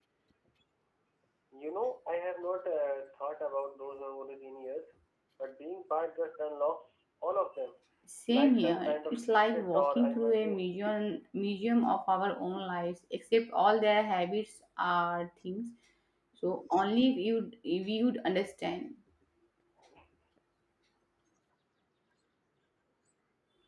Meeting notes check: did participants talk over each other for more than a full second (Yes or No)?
Yes